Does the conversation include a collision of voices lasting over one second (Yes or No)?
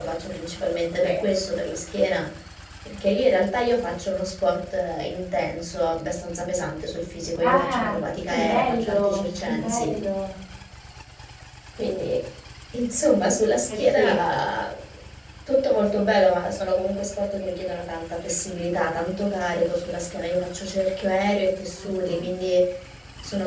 Yes